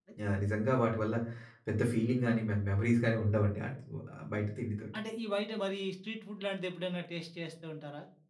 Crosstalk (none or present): none